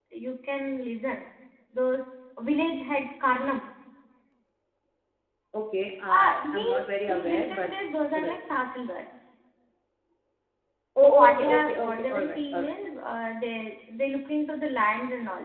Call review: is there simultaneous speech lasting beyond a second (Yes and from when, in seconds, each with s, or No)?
Yes, from 6.2 s